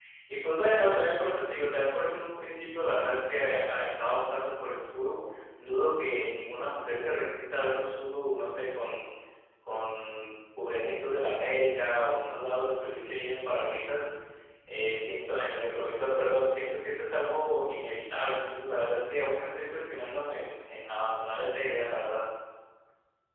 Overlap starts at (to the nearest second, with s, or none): none